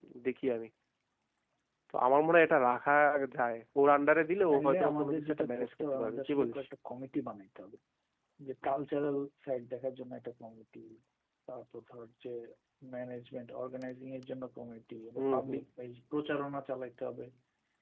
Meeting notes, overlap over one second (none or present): present